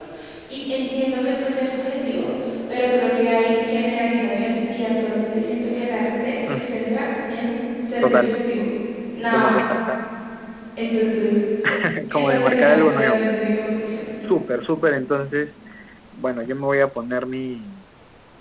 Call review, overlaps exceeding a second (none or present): present